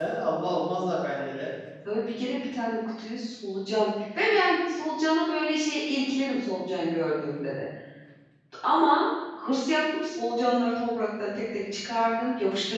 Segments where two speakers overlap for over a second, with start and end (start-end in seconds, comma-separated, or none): none